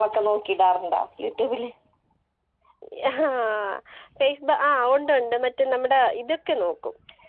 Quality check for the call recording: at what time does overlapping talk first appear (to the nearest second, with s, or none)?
none